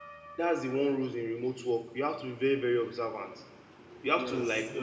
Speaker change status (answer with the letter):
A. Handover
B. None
B